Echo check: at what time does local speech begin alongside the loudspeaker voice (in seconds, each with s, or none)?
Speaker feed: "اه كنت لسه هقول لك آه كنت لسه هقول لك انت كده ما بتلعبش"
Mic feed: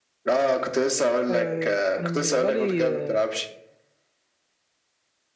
1.3 s